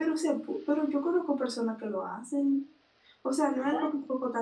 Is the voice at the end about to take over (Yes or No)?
No